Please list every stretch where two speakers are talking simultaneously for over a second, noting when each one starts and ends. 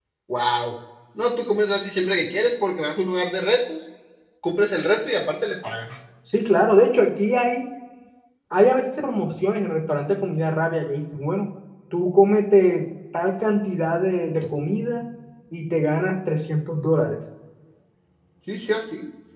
none

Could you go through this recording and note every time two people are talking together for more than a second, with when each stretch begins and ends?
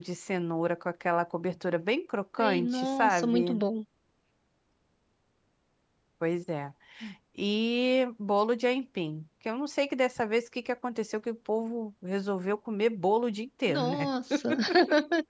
2.4-3.6

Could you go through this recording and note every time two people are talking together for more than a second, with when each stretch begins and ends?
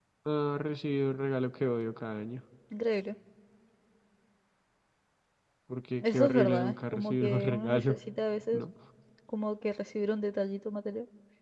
6.0-8.0

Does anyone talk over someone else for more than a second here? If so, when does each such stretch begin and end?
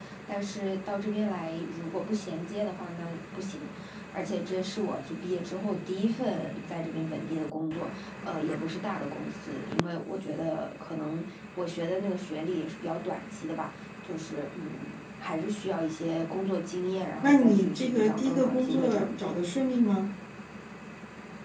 17.2-19.3

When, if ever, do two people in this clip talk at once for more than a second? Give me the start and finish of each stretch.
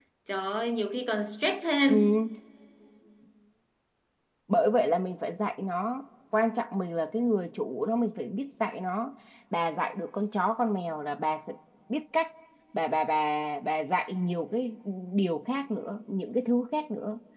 none

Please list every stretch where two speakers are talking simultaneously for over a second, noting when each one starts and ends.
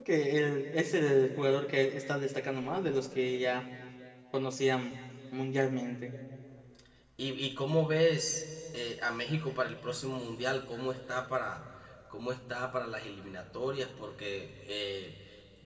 none

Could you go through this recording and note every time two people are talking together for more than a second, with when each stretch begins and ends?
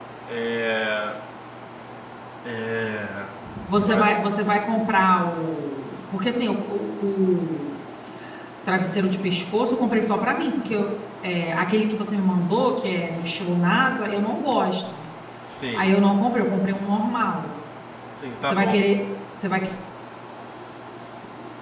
none

